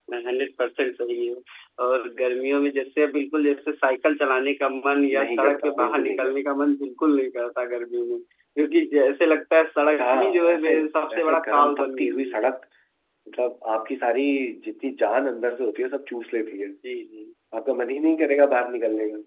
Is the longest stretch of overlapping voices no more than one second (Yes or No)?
No